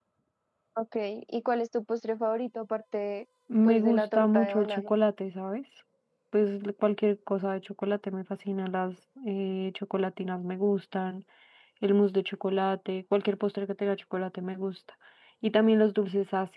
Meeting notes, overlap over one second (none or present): present